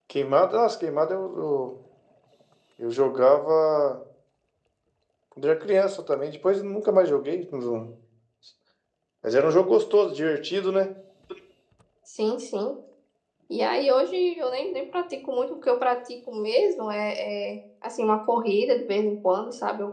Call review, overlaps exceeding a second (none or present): none